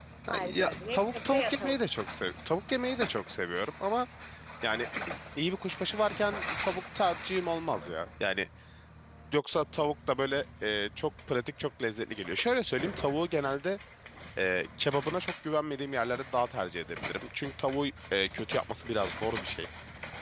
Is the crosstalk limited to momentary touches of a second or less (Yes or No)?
No